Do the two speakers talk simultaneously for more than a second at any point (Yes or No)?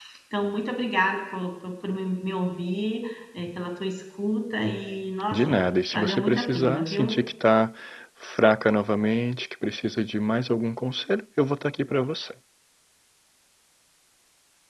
Yes